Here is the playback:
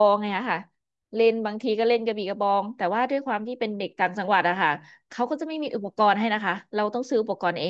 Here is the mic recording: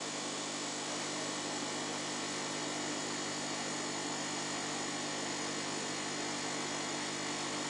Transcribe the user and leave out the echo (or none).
none